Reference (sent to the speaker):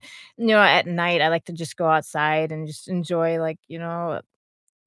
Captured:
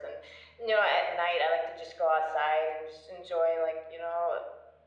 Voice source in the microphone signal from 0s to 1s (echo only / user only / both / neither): echo only